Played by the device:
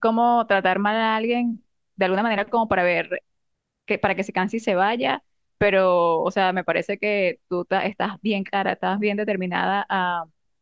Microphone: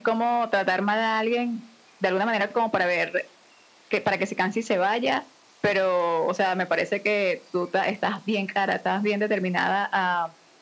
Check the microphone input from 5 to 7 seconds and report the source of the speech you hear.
echo only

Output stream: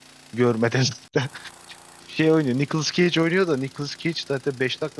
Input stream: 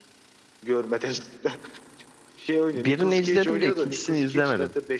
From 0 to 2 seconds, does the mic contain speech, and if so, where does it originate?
echo only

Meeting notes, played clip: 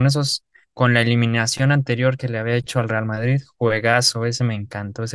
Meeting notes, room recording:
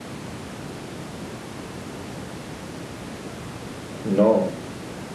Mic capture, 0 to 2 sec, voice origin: neither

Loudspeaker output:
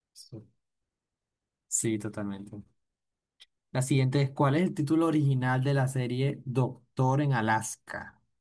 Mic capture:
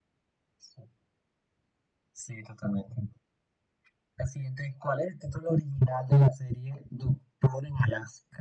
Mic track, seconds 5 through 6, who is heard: echo only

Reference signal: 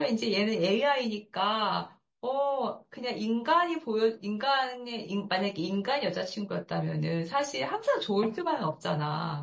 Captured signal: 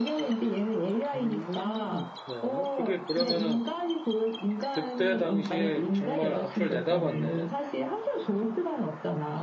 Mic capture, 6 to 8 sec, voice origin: both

